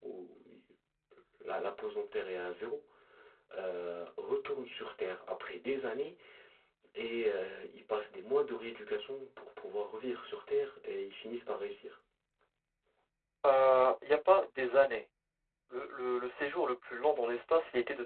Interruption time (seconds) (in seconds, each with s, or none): none